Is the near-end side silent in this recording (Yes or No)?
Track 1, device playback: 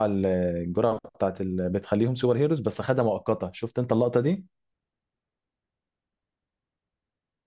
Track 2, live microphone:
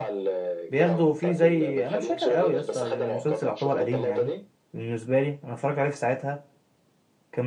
No